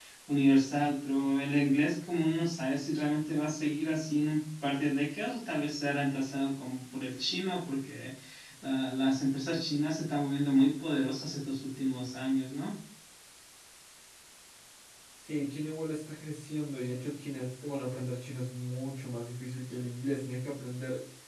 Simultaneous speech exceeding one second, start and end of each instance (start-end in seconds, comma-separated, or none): none